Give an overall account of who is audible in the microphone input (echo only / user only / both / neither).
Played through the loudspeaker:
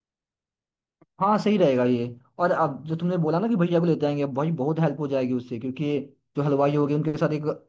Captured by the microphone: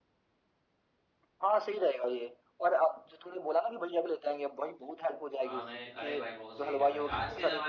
both